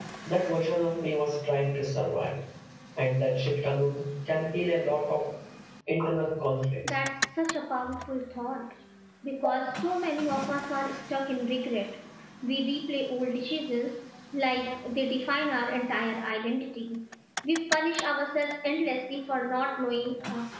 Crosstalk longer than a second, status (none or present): none